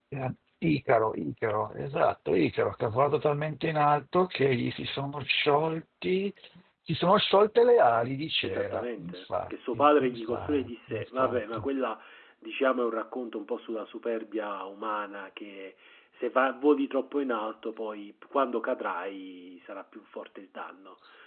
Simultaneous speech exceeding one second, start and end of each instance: 8.4-11.7

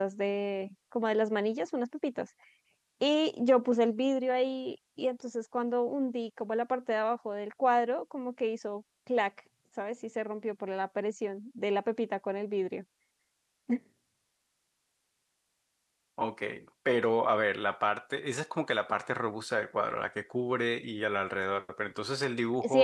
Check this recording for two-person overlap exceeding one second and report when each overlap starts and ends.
none

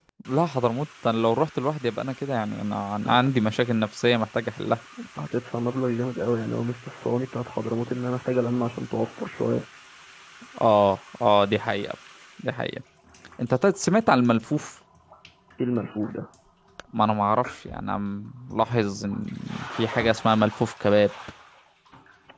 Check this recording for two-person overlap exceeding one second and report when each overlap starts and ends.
none

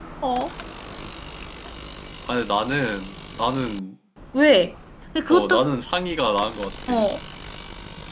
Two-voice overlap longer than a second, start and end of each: none

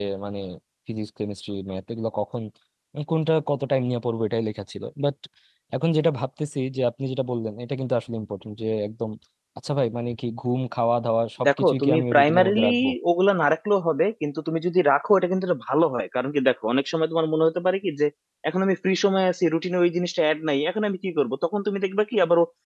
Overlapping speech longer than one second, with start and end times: 11.5-12.7

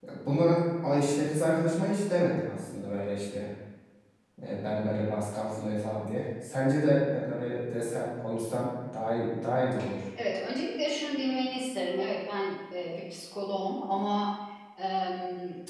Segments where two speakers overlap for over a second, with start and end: none

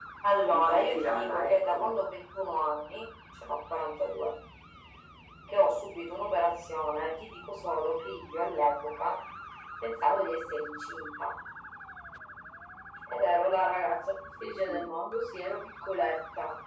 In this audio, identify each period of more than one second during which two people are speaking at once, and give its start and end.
0.5-1.8

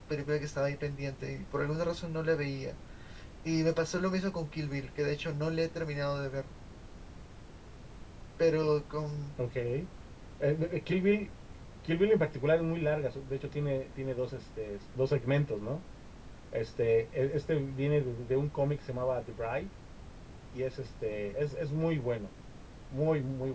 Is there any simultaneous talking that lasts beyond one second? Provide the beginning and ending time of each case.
none

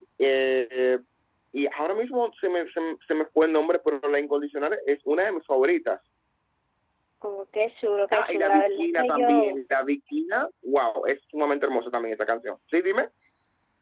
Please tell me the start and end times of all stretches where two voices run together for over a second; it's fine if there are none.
8.1-9.6

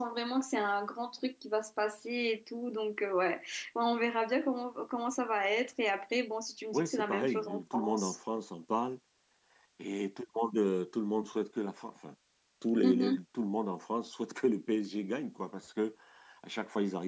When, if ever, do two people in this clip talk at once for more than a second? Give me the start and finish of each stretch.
6.7-8.2

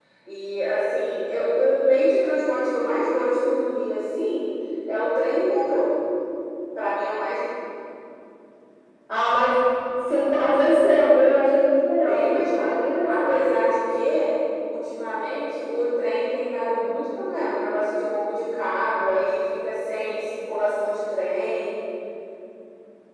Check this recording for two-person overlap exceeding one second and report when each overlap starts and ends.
12.0-13.6

